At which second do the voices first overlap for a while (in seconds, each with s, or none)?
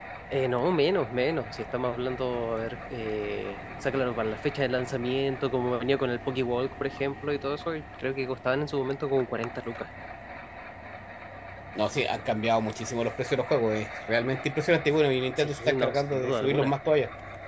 15.4 s